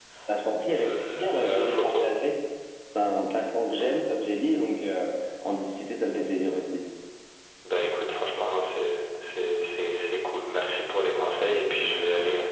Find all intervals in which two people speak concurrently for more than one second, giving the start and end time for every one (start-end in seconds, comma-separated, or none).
0.7-2.1